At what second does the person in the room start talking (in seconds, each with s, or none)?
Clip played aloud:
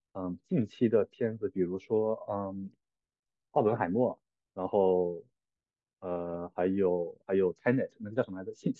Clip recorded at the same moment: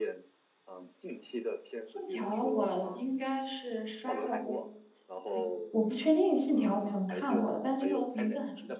1.8 s